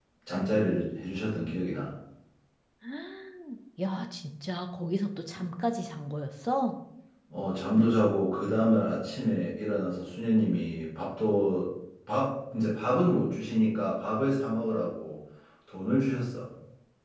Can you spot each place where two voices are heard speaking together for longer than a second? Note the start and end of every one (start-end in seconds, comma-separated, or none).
none